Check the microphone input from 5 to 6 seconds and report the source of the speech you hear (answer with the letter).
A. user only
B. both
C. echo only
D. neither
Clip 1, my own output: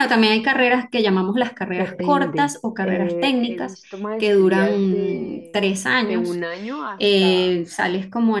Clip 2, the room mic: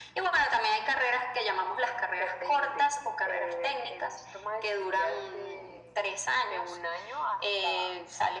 C